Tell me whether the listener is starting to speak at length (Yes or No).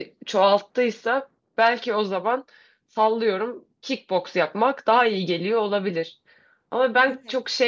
No